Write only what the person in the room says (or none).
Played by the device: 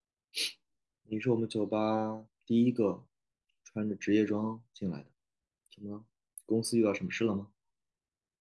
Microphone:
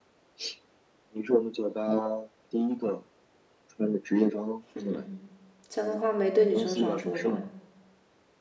哼哼，这样的话没对女生少说吧。